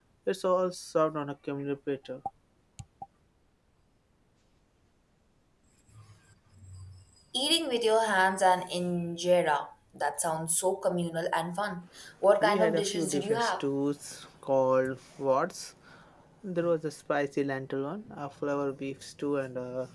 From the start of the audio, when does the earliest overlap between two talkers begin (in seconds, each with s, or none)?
12.4 s